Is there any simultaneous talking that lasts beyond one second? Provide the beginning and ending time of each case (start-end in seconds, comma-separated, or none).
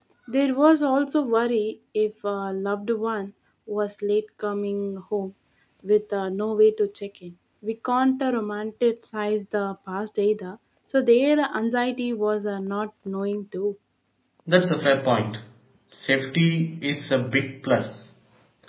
none